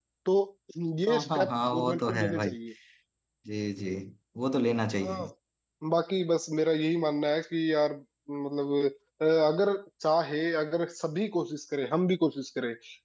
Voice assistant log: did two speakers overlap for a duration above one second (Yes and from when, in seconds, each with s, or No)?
Yes, from 1.1 s